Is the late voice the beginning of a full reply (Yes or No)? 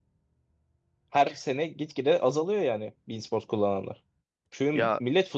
No